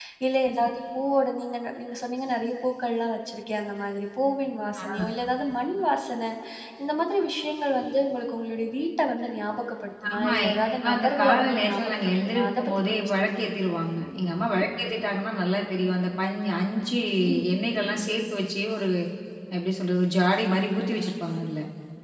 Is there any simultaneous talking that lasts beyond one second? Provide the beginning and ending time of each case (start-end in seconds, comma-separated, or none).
10.1-13.4